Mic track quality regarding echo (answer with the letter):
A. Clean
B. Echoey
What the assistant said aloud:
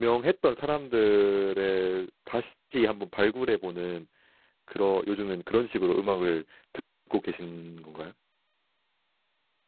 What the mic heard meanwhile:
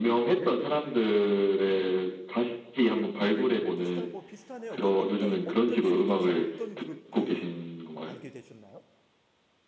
B